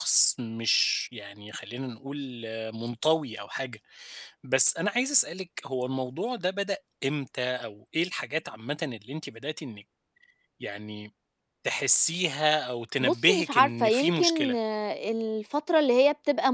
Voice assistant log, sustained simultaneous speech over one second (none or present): present